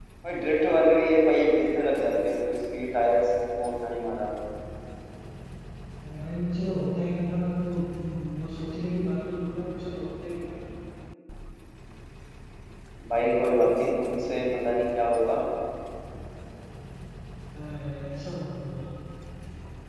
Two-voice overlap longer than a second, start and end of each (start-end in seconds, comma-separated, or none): none